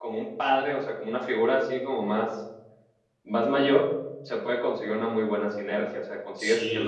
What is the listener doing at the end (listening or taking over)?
listening